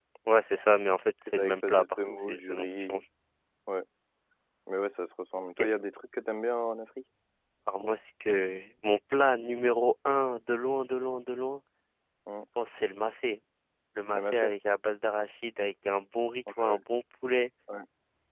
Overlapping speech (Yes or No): Yes